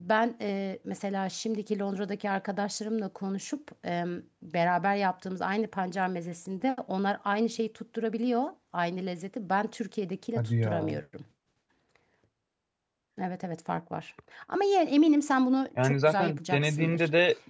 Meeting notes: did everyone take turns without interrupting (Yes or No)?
No